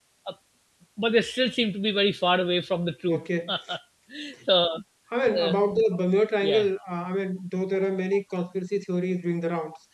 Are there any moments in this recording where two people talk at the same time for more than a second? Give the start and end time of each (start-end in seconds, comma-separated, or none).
none